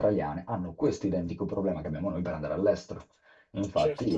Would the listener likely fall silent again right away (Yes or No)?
Yes